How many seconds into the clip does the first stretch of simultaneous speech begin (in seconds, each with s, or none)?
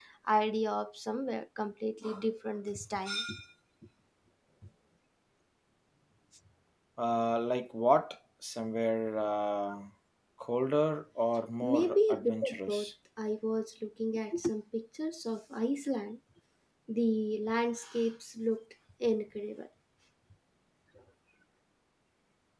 11.6 s